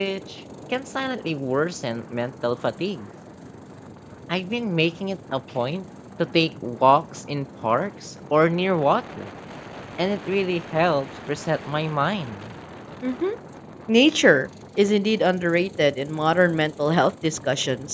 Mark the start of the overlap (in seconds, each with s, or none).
none